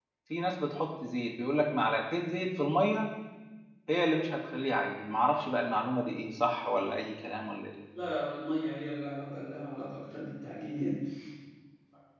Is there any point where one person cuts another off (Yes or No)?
No